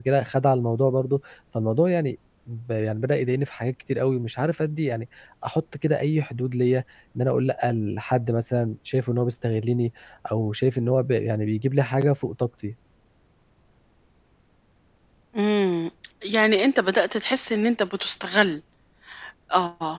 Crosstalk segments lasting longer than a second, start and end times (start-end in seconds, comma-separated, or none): none